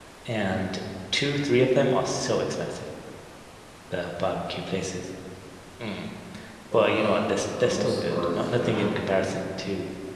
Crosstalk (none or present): present